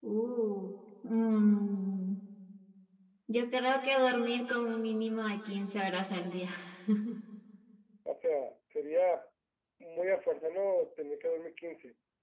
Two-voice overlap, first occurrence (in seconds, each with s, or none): none